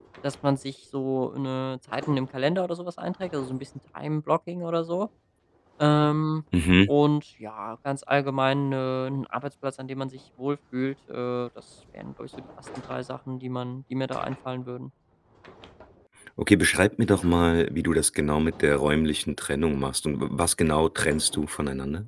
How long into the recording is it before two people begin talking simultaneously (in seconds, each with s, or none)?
none